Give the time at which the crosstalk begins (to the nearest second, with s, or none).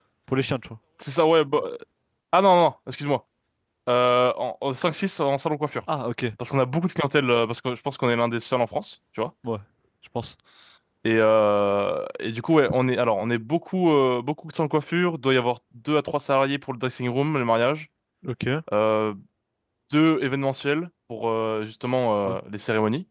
none